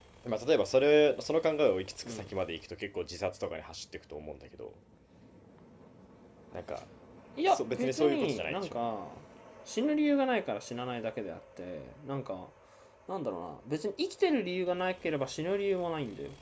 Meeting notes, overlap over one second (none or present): present